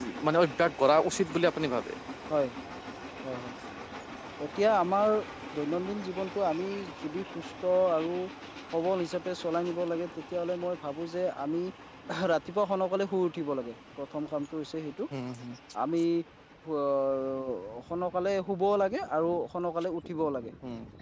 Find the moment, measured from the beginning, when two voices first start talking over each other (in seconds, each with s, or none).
none